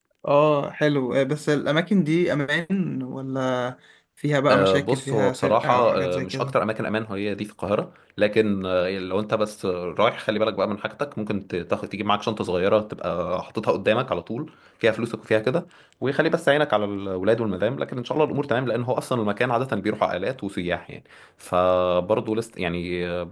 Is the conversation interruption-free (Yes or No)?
No